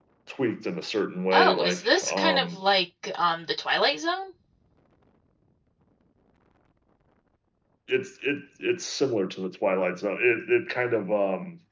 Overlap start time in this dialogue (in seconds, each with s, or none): 1.3 s